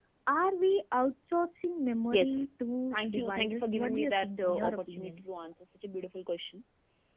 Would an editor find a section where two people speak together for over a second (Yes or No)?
Yes